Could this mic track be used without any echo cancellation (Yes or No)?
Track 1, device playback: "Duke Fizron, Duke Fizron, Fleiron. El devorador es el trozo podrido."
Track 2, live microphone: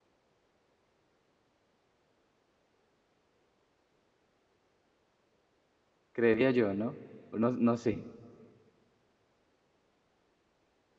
Yes